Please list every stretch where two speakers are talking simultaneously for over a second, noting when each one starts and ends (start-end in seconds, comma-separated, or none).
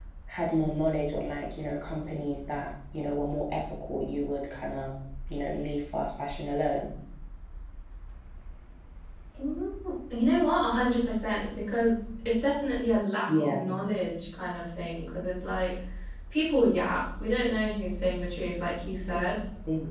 none